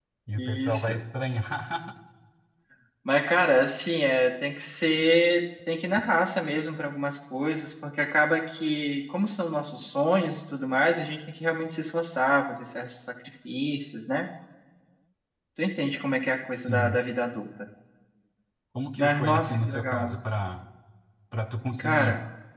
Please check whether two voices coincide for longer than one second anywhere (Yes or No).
Yes